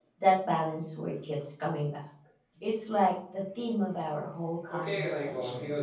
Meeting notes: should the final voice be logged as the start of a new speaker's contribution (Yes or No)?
Yes